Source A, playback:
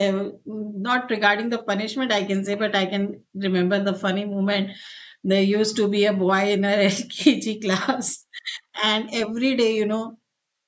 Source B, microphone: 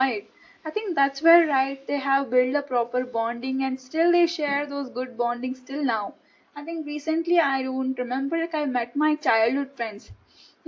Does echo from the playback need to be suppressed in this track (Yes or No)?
No